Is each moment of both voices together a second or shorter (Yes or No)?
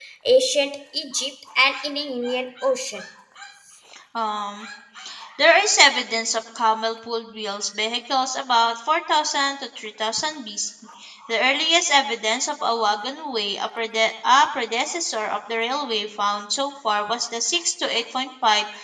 Yes